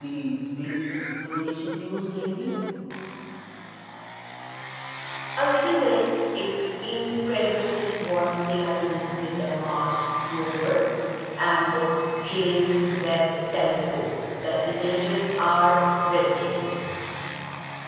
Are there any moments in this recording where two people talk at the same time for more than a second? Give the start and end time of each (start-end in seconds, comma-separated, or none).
none